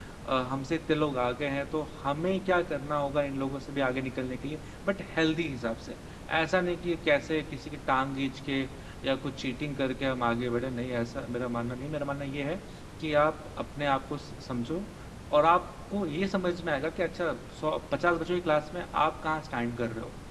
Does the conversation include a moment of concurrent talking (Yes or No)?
No